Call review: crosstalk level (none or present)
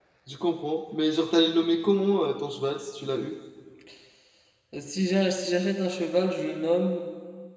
none